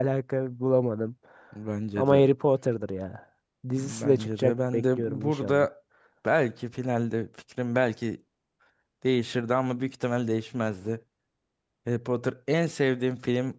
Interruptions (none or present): present